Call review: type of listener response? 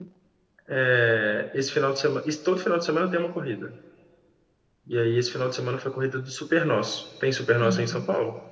taking over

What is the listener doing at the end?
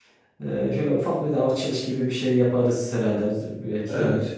taking over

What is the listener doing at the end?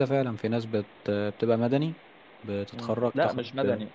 taking over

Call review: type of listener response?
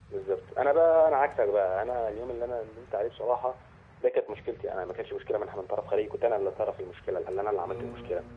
listening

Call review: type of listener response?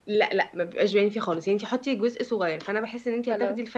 listening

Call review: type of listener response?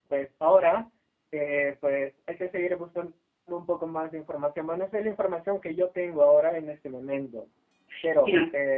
taking over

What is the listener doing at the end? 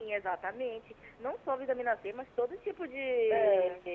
listening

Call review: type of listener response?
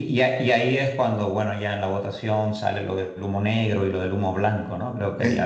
taking over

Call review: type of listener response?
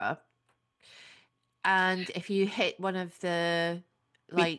taking over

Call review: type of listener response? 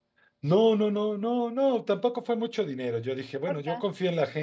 listening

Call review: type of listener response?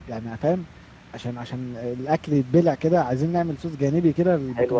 taking over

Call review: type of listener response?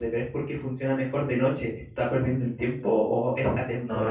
listening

